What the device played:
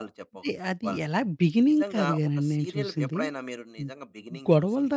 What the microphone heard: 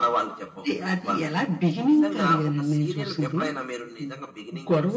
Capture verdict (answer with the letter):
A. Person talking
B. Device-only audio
B